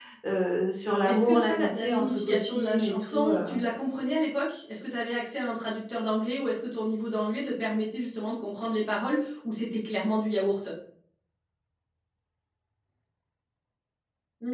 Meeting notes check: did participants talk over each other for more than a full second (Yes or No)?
Yes